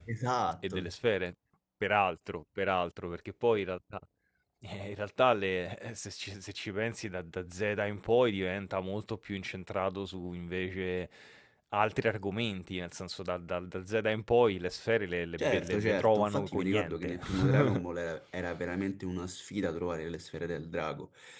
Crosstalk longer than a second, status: present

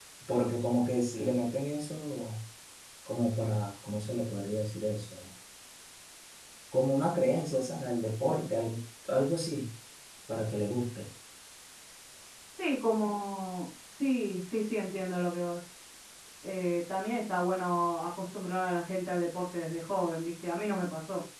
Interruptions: none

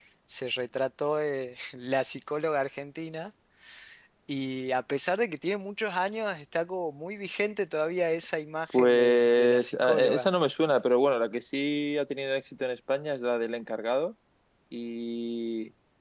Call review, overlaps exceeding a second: present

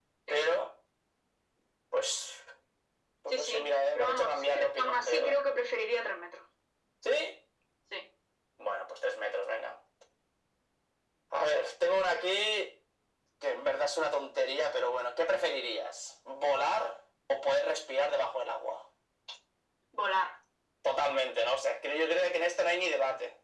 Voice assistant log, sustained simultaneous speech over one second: present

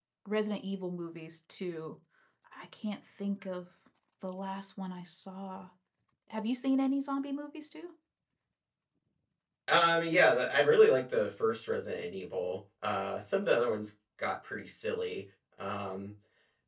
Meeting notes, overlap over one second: none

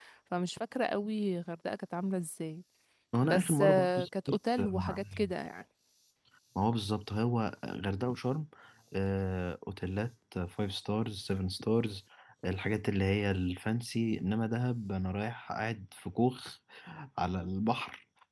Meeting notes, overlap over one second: present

